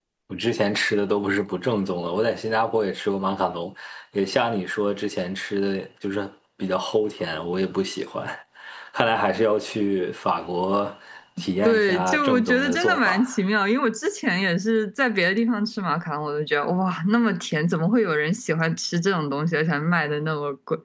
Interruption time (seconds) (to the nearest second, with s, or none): 12 s